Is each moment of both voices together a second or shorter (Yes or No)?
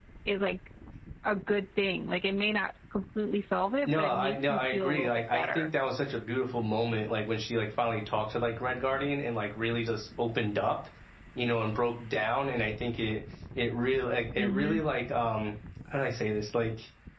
No